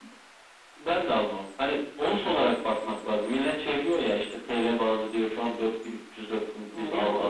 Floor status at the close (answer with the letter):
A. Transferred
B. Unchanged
A